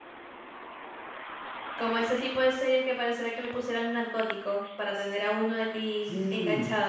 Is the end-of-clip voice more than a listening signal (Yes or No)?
Yes